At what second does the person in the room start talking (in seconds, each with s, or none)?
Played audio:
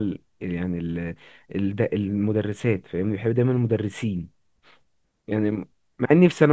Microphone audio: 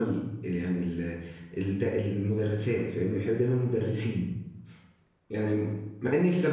none